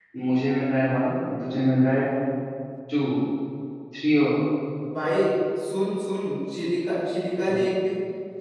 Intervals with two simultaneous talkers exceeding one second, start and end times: none

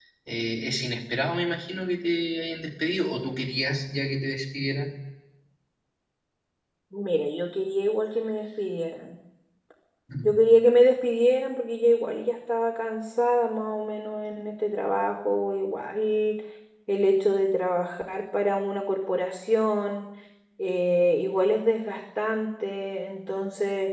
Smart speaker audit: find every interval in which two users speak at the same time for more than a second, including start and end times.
none

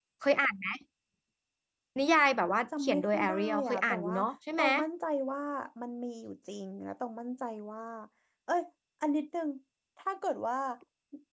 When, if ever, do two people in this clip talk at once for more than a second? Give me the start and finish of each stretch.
2.8-4.2

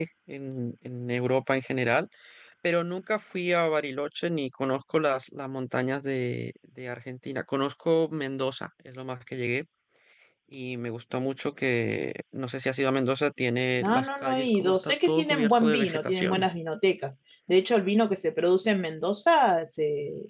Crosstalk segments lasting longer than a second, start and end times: 13.8-16.5

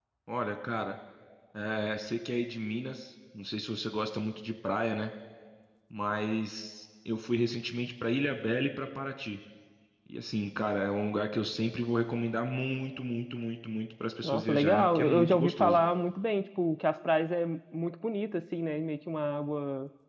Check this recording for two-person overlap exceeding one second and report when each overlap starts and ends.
14.2-15.8

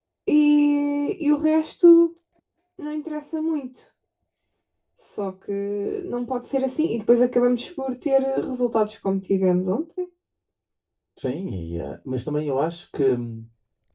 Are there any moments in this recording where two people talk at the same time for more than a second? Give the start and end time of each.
none

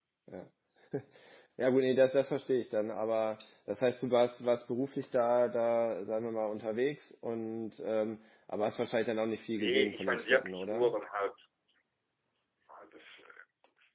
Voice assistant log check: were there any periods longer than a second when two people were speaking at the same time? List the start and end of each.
9.6-10.9

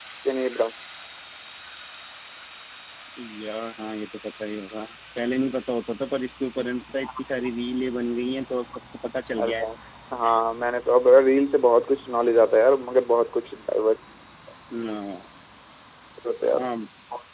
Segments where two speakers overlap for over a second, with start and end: none

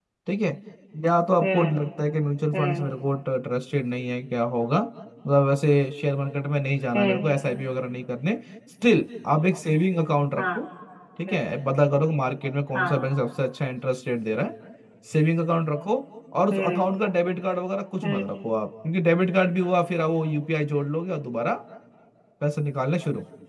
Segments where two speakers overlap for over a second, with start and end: none

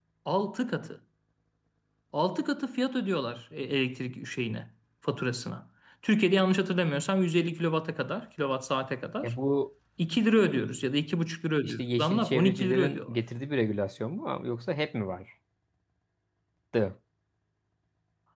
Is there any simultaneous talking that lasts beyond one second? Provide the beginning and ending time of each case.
11.6-13.1

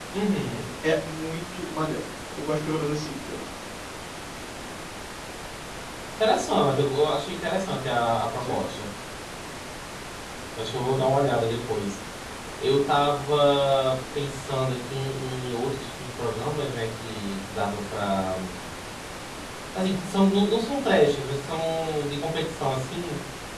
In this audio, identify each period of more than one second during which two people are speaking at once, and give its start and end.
none

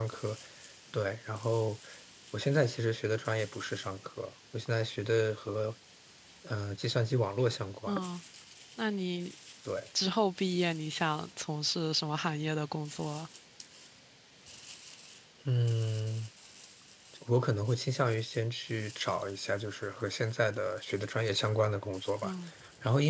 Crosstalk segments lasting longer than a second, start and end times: none

